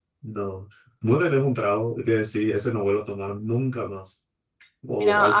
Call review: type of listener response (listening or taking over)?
taking over